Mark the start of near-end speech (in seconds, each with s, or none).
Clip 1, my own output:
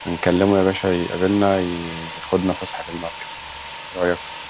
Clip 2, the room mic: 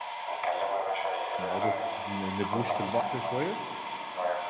1.4 s